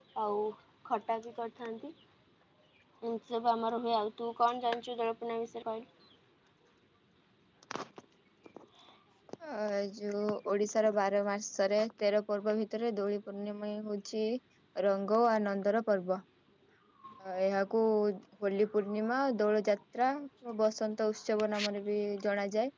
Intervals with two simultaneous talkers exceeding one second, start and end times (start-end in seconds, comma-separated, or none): none